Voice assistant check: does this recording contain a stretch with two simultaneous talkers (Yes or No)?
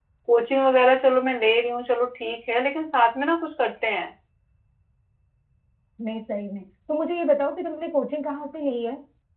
No